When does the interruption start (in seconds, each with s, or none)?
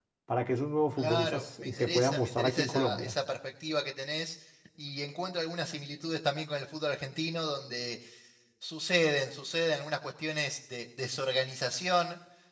1.0 s